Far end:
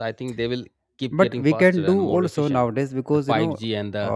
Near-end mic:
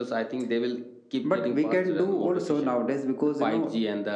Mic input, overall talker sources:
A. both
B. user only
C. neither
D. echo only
D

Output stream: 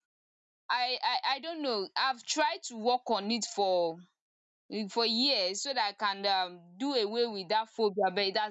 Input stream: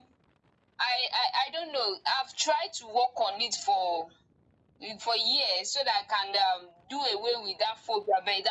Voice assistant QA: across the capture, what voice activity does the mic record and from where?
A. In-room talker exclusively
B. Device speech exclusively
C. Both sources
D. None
B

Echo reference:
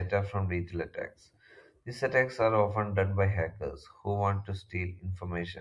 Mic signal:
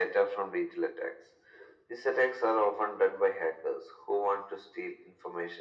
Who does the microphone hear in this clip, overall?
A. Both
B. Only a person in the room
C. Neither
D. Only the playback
D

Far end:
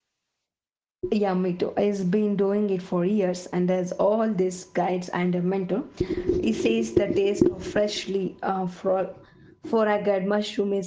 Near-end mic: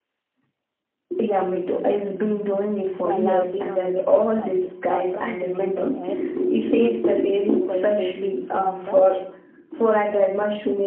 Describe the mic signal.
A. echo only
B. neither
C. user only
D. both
D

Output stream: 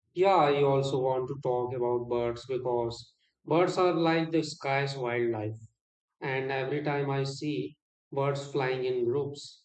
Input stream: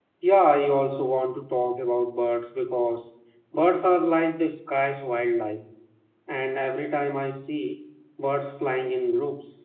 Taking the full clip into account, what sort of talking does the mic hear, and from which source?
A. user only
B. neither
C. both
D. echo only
D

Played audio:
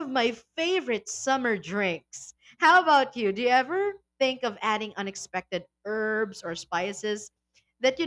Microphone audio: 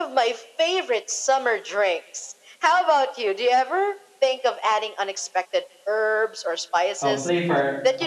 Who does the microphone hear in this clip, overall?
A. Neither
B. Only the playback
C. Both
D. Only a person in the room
C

